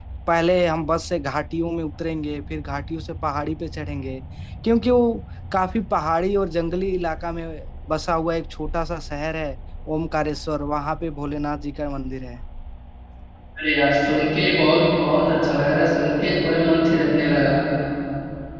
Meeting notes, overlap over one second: none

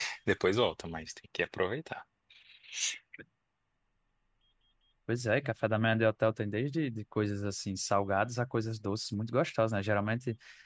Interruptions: none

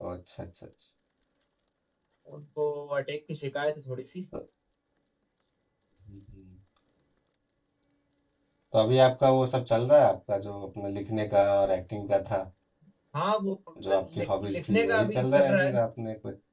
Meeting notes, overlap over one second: present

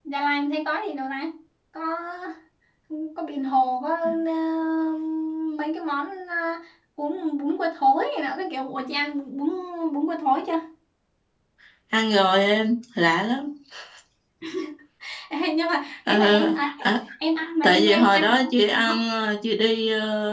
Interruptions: present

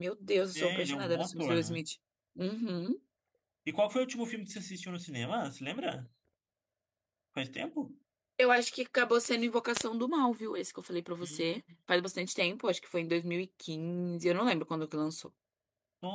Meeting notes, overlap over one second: present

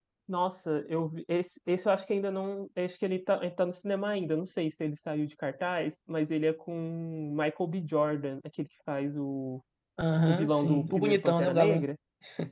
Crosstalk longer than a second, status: present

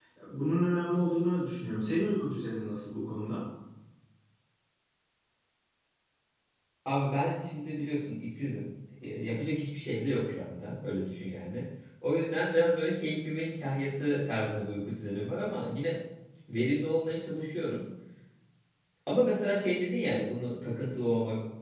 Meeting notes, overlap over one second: none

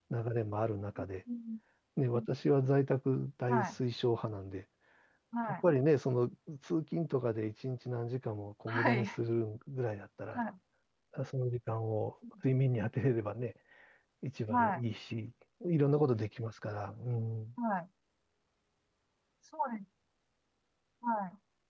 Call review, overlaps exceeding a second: none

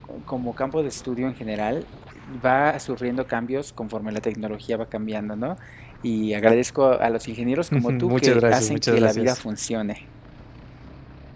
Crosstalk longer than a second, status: present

